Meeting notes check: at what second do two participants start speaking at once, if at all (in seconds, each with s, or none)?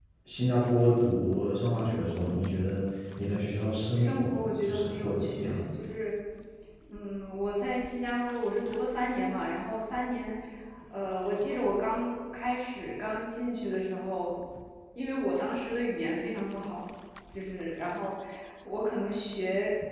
4.0 s